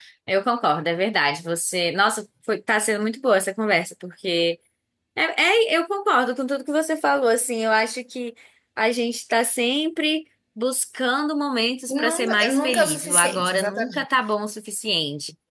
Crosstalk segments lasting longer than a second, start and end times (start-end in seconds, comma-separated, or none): 12.0-14.0